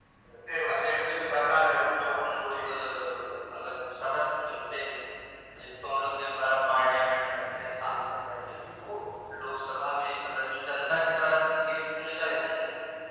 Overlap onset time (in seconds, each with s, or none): 0.5 s